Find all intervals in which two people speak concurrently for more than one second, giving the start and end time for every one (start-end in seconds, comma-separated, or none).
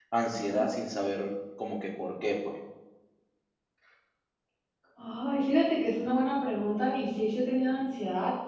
none